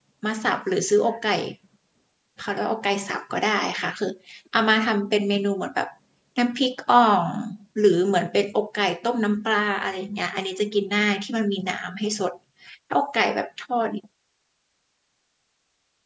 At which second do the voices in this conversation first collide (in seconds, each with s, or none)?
none